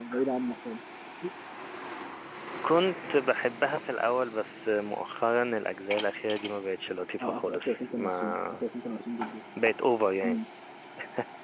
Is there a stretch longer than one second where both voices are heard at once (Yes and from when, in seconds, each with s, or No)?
Yes, from 7.2 s